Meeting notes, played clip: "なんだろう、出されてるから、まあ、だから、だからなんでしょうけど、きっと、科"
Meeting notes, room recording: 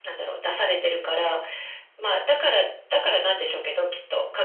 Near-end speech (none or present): none